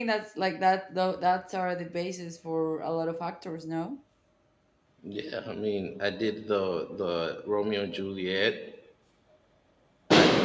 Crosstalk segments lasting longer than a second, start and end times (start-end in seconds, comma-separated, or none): none